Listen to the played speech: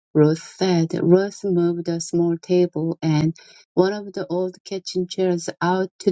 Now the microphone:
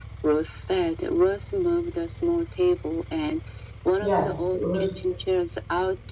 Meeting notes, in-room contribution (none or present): present